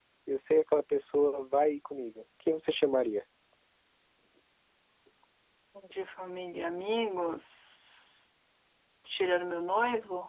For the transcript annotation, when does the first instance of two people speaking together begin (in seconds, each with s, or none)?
none